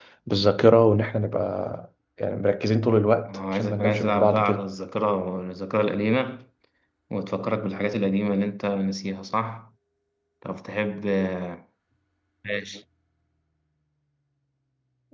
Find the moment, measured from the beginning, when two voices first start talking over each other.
3.3 s

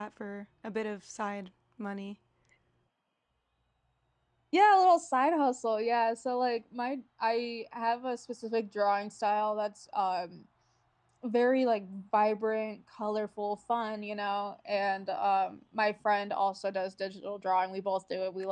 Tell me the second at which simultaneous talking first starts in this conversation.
none

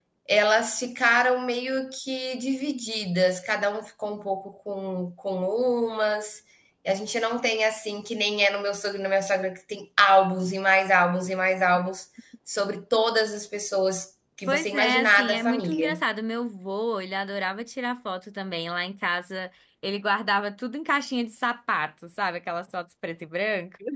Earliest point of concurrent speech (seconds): 14.5 s

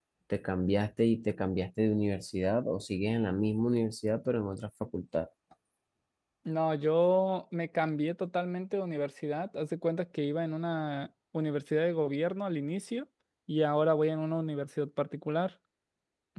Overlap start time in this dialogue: none

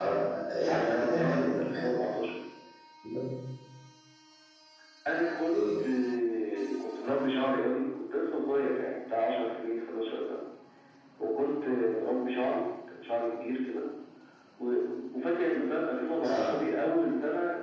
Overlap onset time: 0.6 s

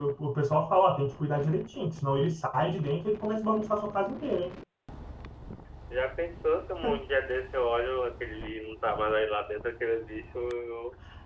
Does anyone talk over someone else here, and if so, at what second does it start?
none

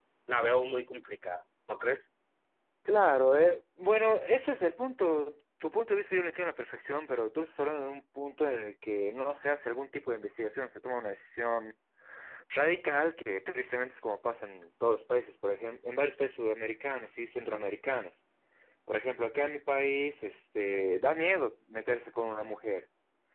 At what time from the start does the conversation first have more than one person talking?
none

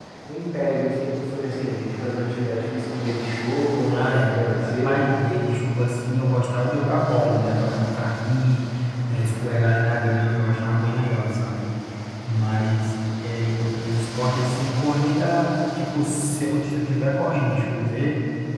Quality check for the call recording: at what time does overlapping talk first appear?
3.9 s

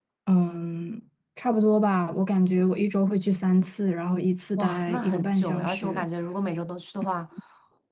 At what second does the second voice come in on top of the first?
4.6 s

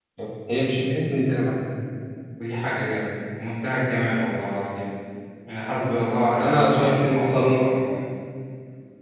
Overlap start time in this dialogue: 6.4 s

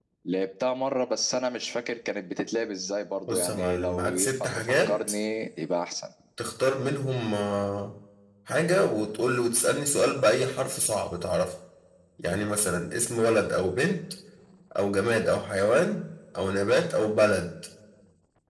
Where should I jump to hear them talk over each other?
3.3 s

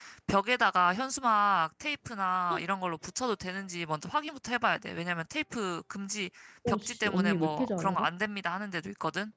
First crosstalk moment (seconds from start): 6.7 s

